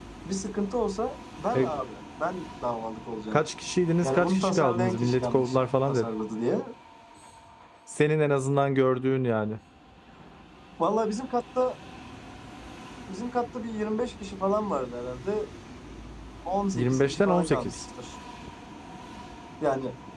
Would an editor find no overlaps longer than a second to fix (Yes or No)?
No